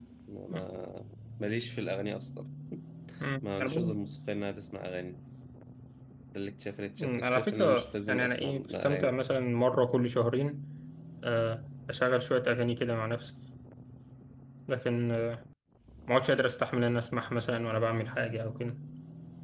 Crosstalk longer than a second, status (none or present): present